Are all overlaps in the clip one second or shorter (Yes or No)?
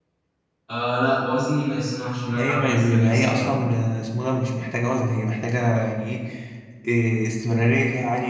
No